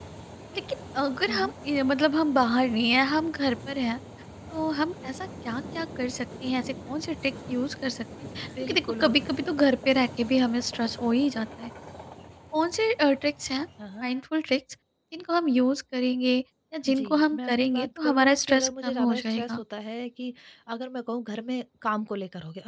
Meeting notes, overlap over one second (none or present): present